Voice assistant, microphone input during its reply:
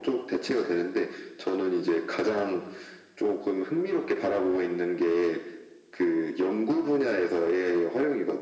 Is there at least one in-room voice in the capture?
No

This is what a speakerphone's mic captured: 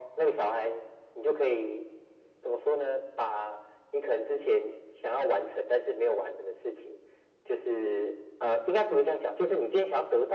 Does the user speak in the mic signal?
No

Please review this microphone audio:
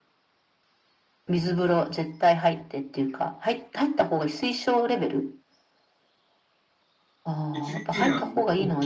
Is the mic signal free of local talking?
No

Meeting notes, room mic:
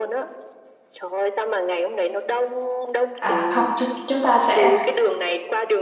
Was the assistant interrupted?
Yes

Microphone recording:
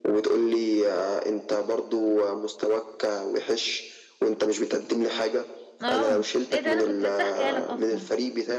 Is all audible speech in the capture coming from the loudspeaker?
No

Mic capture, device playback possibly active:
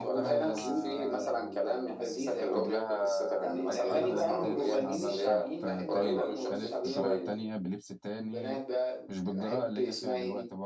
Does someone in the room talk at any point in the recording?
Yes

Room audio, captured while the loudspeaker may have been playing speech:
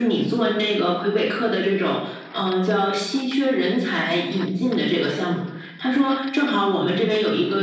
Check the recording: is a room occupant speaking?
No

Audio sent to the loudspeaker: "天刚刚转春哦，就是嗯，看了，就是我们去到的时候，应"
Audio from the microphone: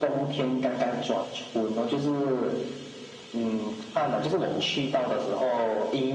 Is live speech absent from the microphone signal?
Yes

